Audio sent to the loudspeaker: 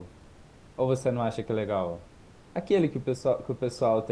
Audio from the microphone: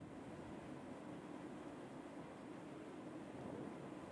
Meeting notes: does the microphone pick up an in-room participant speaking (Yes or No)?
No